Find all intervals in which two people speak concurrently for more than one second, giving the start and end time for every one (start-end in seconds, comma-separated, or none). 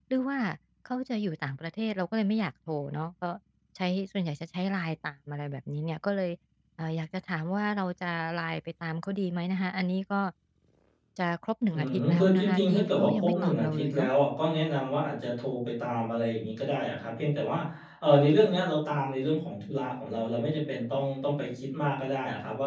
11.7-14.1